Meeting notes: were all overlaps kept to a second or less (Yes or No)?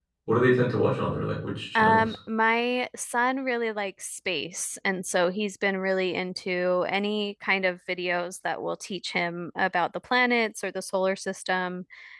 Yes